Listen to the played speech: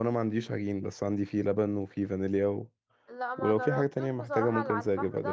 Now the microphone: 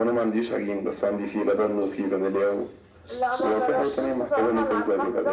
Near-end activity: none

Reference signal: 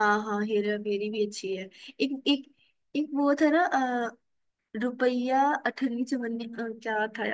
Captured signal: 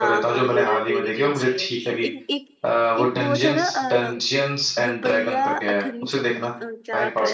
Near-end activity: present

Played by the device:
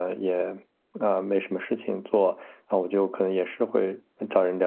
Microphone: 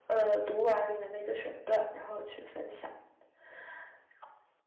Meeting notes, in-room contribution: present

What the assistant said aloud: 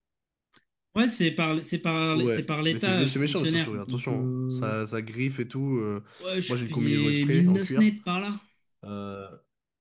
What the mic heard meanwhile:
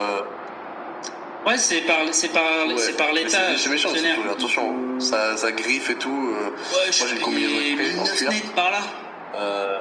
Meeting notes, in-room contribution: none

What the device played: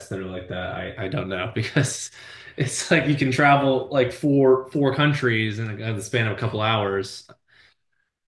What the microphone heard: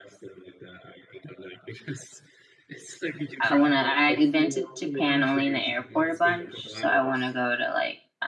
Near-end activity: present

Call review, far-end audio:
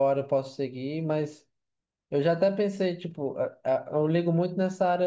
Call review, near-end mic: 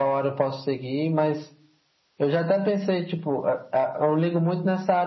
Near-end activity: none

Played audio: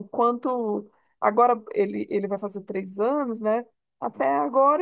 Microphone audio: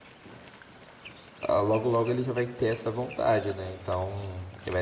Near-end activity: present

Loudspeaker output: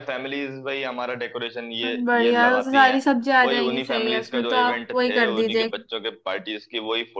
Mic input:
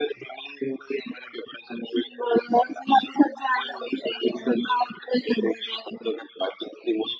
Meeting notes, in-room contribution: none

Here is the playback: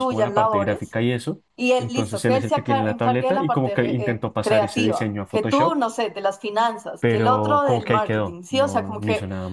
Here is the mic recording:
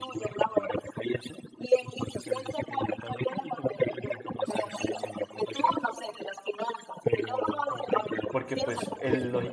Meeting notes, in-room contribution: present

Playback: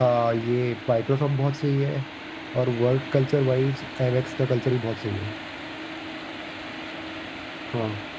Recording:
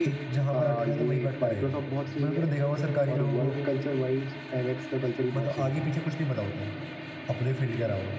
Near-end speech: present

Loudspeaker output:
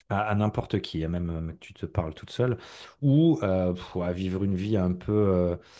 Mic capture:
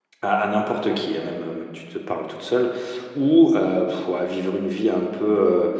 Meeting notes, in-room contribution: none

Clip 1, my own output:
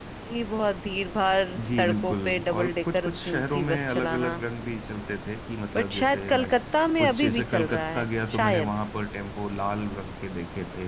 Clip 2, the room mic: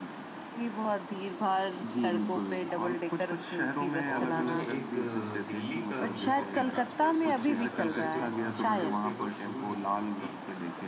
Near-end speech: present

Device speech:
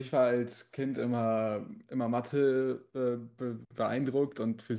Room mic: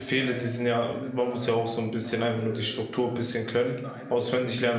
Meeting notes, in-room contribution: present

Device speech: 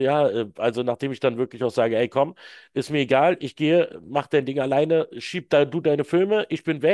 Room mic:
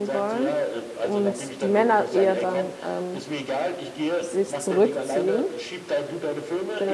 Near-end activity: present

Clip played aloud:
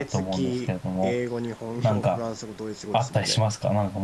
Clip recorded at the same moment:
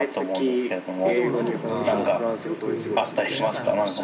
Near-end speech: present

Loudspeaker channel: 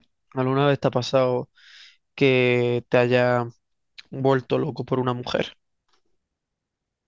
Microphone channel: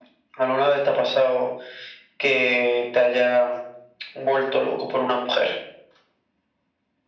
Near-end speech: none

